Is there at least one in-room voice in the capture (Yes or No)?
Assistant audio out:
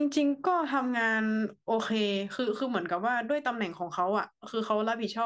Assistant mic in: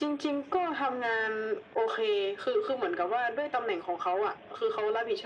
No